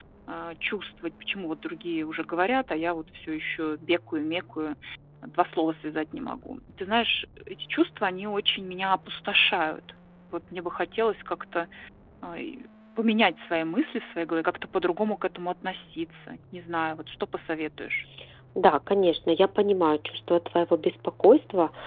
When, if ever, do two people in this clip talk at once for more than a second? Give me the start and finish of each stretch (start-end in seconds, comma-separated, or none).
none